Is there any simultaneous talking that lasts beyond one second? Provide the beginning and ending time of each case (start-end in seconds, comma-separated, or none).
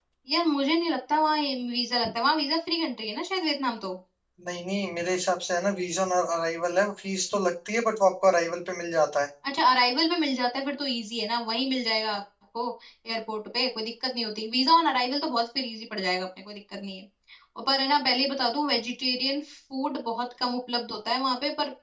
none